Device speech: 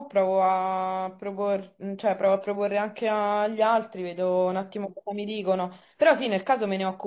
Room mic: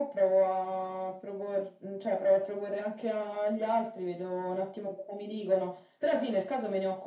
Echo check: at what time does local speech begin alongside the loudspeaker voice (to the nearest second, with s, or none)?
none